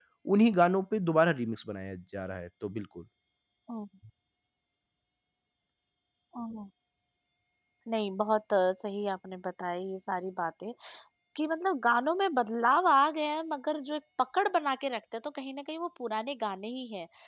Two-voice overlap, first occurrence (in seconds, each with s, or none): none